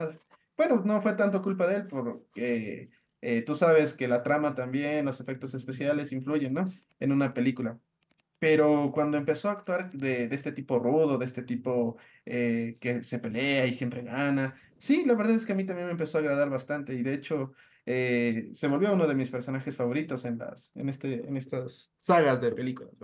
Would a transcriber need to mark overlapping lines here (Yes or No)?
No